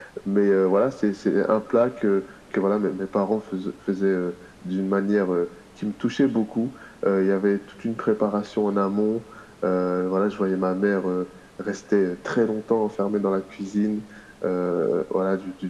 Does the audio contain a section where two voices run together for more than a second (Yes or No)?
No